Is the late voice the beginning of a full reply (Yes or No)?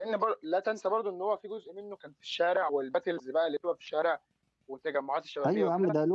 Yes